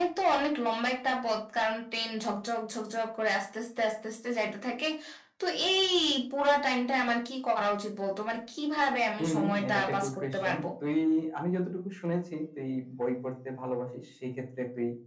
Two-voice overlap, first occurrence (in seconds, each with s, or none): 9.2 s